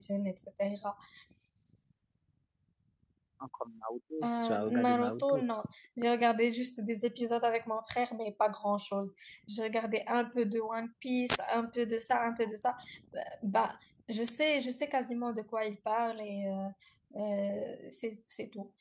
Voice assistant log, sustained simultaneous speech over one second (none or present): present